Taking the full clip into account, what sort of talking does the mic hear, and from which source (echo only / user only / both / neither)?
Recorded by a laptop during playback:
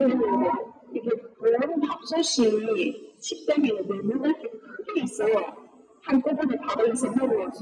echo only